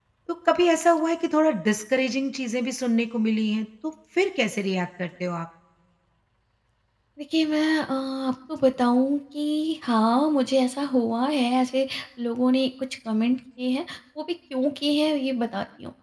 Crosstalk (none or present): none